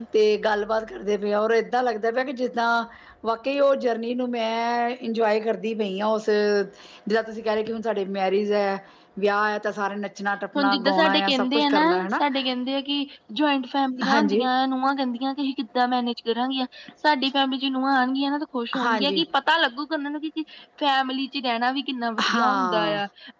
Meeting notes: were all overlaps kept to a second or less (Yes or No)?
No